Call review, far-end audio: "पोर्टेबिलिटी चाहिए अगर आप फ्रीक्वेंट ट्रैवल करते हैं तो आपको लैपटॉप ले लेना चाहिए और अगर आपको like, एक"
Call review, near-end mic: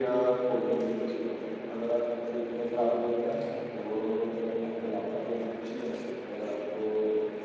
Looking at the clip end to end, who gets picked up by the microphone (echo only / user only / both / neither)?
both